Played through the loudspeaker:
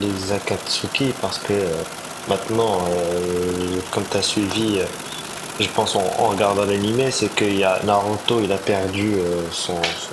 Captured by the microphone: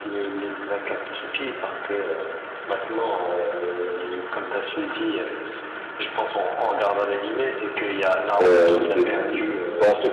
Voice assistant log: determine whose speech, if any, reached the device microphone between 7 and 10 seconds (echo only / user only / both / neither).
both